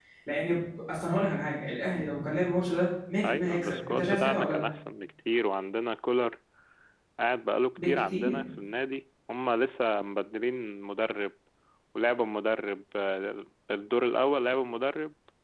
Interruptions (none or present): present